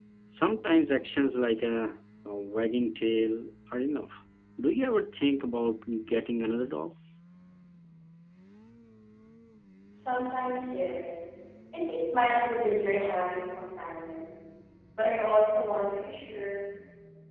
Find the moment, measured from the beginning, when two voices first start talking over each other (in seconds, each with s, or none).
none